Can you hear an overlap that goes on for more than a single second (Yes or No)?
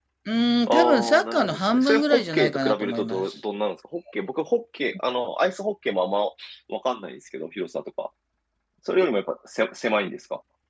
Yes